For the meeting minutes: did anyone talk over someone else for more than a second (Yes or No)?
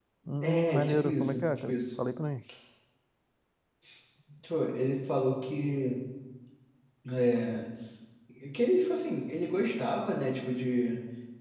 Yes